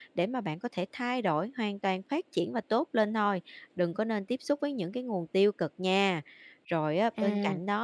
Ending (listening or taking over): listening